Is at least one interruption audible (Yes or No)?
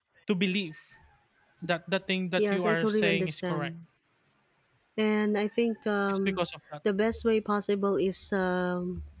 Yes